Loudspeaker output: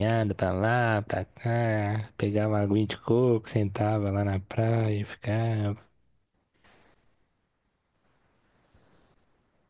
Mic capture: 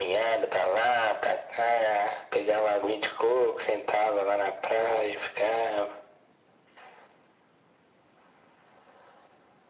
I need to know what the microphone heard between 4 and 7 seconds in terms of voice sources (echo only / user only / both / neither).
echo only